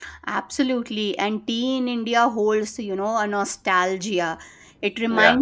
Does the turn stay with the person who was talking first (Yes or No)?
Yes